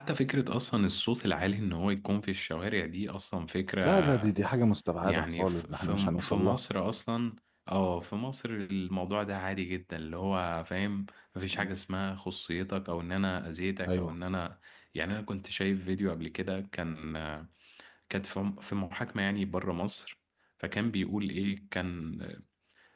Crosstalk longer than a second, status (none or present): present